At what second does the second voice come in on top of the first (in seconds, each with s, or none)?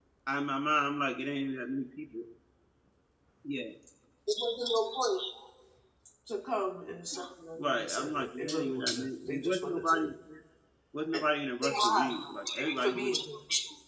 7.5 s